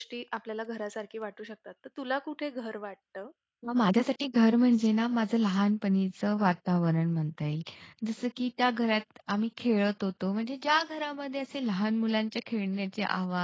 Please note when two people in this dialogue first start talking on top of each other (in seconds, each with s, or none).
none